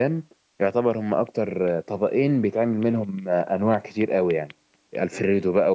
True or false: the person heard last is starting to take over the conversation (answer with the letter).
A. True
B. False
B